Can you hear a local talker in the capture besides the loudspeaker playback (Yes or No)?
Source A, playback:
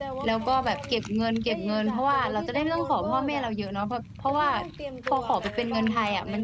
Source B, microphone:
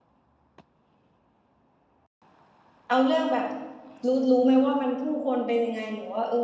Yes